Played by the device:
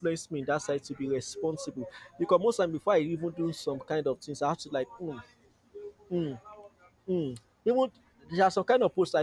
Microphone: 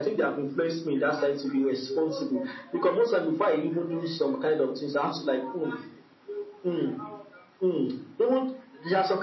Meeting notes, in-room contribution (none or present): none